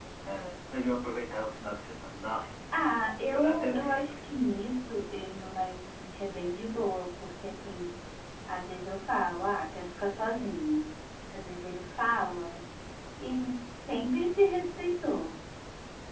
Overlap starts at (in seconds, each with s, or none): 2.7 s